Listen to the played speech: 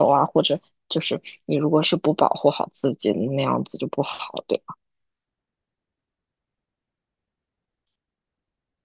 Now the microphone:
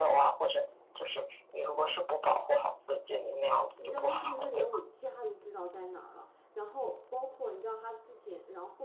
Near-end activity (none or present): present